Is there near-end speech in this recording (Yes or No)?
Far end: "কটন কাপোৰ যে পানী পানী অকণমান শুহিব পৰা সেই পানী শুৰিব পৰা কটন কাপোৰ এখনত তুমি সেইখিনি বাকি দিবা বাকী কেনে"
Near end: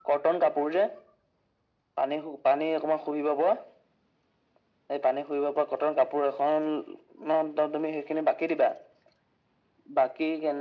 No